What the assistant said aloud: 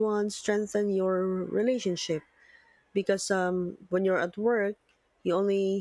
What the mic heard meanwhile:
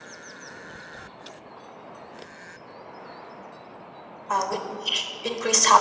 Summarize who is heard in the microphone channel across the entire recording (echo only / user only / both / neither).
user only